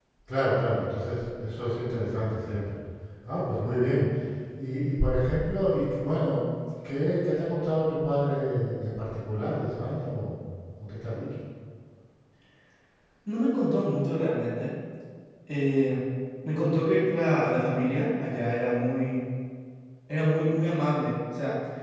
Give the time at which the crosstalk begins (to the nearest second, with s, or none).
none